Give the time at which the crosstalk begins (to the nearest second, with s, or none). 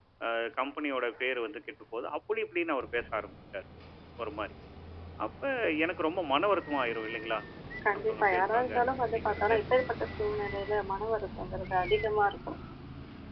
8 s